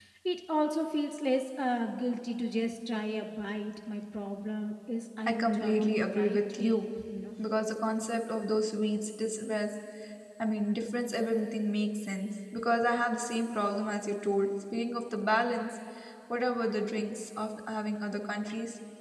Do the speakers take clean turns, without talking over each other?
No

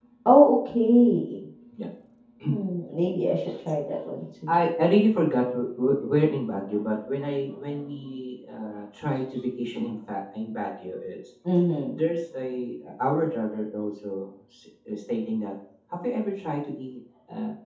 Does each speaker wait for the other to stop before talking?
Yes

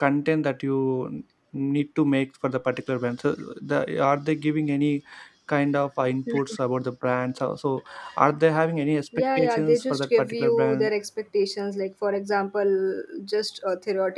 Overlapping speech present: Yes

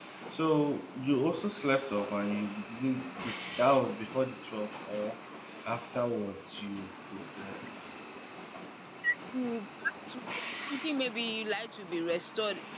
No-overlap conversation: Yes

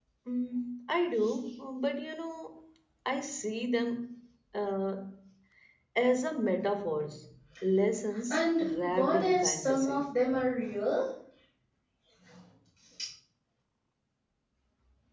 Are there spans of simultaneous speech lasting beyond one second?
Yes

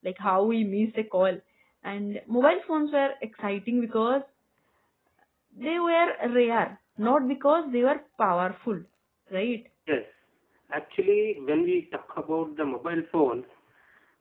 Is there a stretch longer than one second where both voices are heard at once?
No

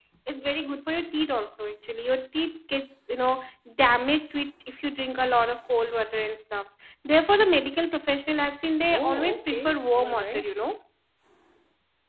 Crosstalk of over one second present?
Yes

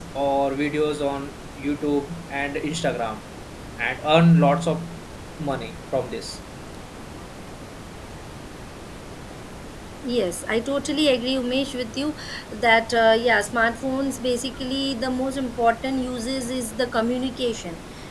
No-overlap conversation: Yes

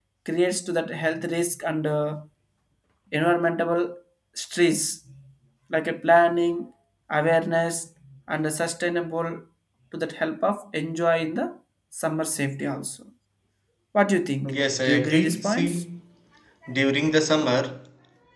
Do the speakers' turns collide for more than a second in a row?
Yes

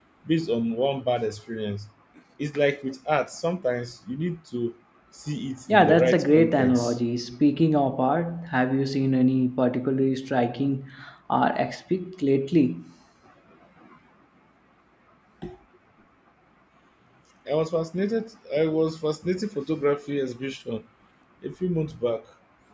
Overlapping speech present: Yes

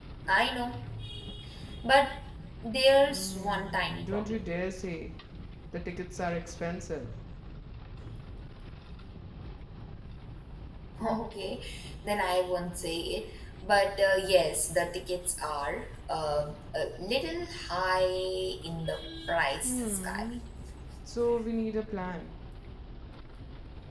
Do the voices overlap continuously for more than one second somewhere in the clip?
Yes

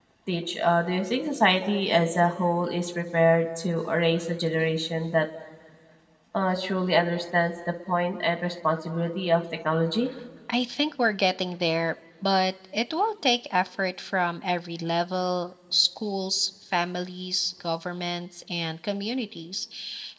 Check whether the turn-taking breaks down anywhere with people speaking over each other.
No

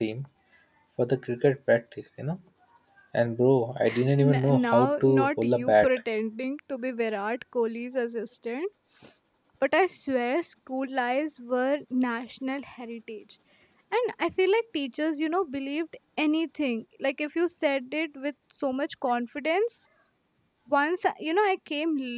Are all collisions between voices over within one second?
No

